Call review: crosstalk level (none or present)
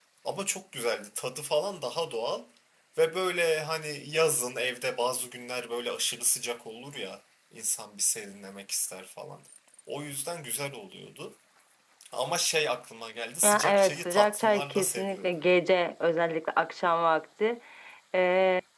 present